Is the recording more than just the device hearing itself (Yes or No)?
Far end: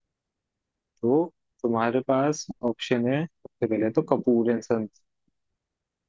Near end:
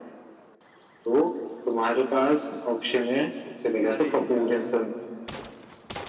Yes